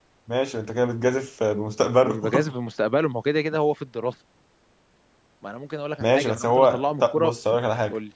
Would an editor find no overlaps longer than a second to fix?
No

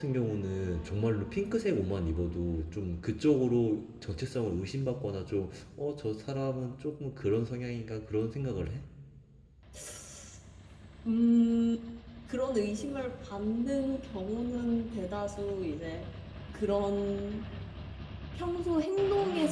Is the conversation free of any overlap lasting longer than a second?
Yes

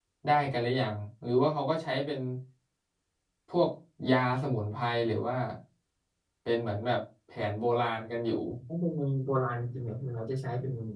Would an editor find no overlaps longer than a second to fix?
Yes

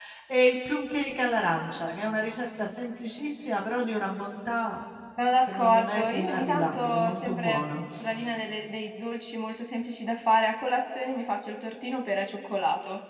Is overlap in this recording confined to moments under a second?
No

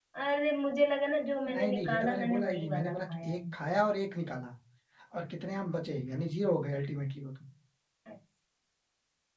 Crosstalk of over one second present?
Yes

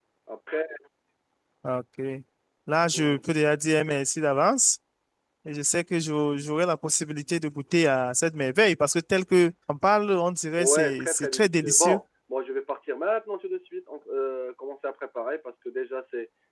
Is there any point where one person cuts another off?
Yes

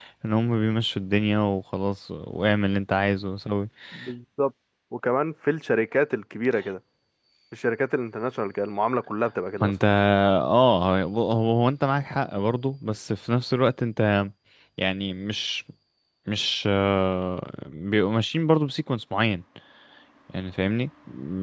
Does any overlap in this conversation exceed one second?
No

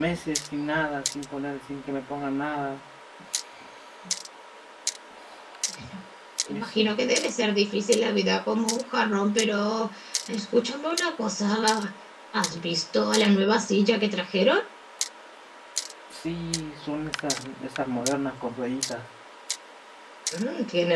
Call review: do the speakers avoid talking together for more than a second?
Yes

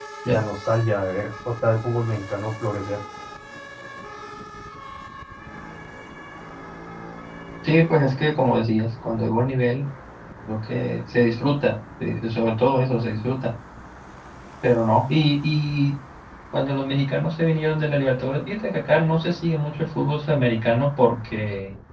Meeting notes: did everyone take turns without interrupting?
Yes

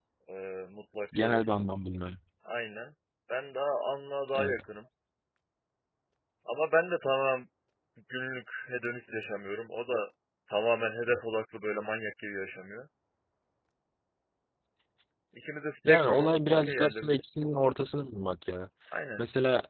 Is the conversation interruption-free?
No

